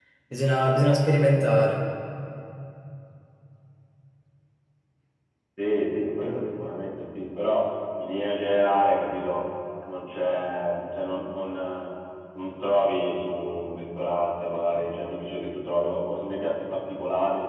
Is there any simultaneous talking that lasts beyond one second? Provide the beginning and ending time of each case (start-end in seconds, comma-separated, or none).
none